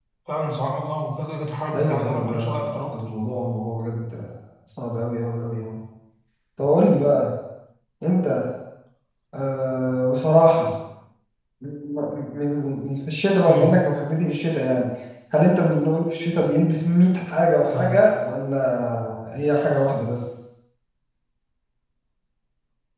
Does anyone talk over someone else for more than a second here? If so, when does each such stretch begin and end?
1.7-3.0

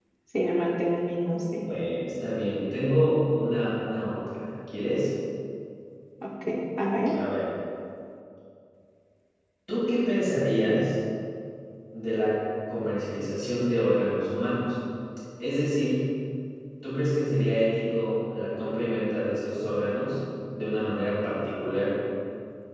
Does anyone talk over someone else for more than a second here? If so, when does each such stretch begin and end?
none

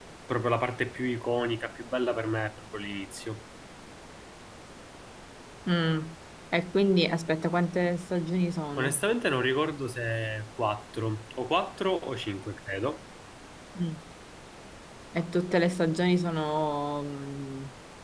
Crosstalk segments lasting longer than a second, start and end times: none

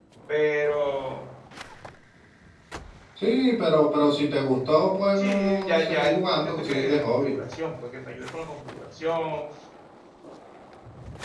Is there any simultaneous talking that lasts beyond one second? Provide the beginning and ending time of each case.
5.2-7.3

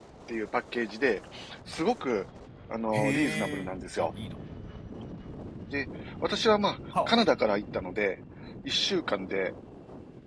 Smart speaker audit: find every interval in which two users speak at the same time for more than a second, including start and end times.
2.9-4.1

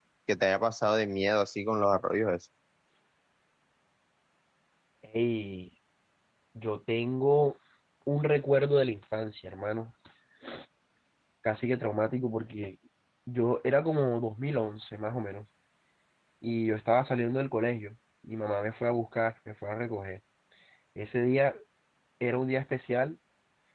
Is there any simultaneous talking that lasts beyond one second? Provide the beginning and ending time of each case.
none

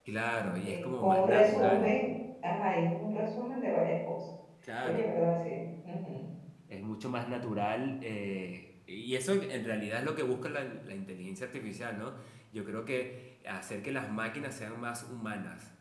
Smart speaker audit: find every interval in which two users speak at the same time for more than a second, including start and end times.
0.6-2.0

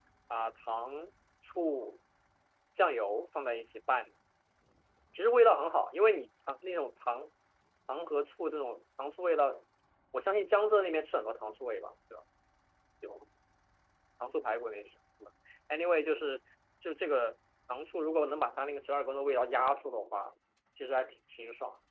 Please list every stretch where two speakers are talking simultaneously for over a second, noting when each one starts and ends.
none

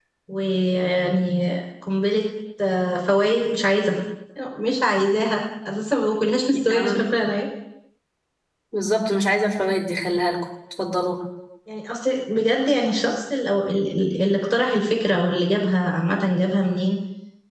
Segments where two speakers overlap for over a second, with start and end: none

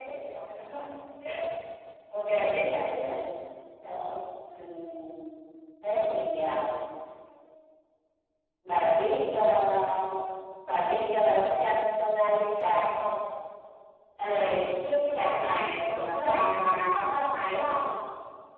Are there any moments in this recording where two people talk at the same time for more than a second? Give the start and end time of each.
none

